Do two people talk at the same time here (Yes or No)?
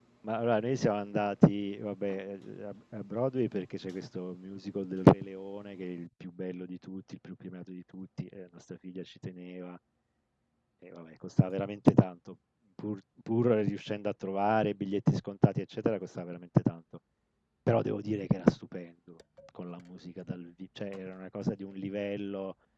No